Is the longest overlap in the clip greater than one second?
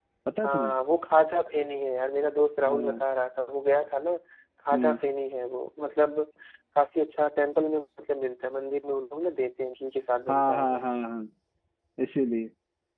No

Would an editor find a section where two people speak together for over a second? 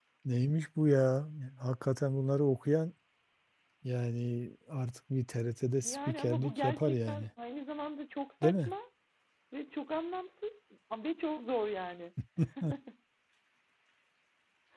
Yes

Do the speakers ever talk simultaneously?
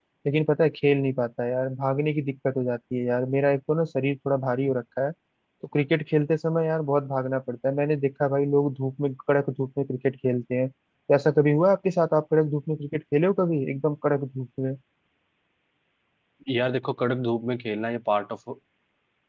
No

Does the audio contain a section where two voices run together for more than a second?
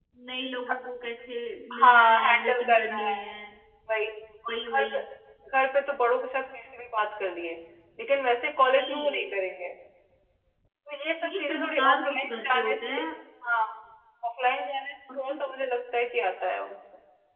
Yes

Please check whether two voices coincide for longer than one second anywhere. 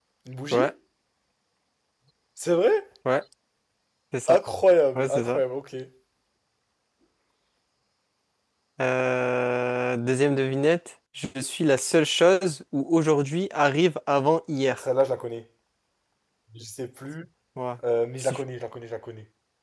No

